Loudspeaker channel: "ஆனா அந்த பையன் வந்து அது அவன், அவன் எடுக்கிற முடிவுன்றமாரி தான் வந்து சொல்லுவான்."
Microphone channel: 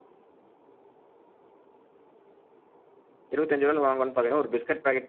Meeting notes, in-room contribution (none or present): present